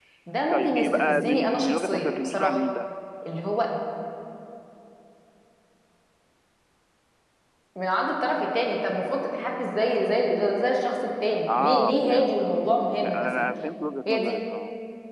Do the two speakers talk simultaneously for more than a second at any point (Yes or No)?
Yes